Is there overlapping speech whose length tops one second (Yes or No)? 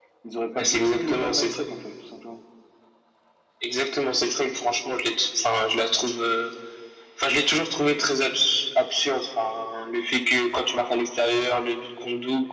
Yes